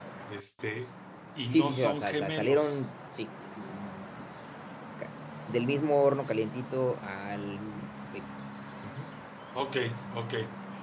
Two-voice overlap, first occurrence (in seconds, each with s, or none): 1.5 s